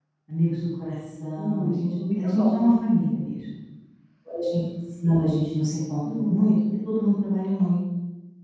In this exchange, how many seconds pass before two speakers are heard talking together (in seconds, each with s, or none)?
1.4 s